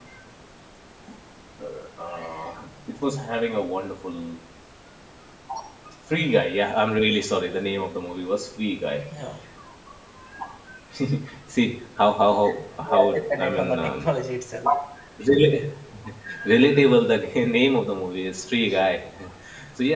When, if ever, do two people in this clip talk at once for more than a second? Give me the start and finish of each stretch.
12.8-14.1

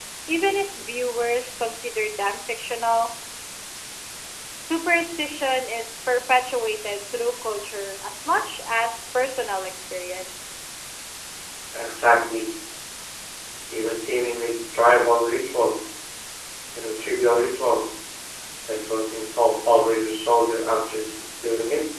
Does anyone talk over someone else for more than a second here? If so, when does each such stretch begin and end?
none

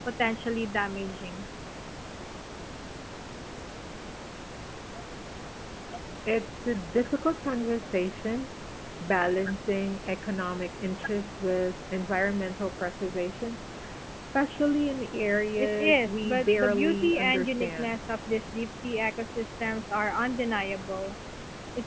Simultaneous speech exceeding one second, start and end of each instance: 15.6-18.0

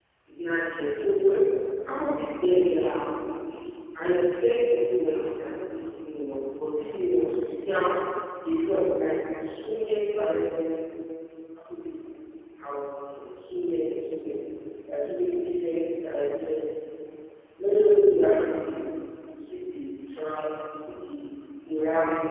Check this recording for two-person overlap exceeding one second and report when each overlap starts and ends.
none

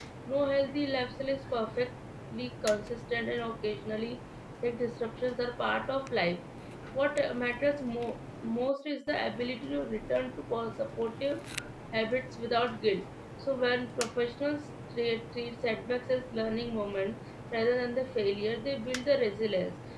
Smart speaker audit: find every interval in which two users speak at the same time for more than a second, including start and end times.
none

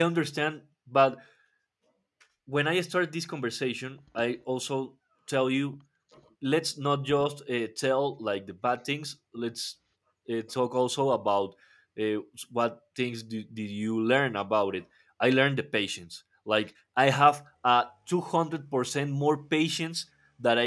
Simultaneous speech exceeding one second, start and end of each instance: none

